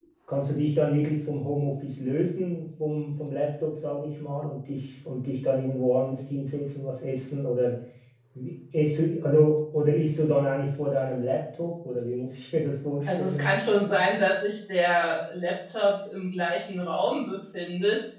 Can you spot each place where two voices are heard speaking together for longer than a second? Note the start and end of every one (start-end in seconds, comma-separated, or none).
none